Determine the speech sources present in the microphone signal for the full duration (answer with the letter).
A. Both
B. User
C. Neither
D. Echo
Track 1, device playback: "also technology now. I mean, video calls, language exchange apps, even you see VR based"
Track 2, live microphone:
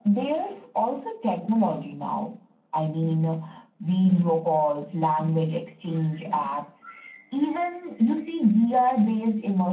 D